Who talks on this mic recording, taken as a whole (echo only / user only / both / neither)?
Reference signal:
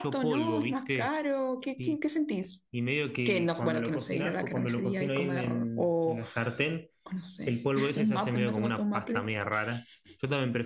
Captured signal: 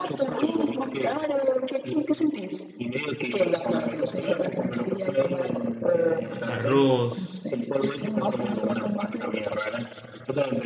both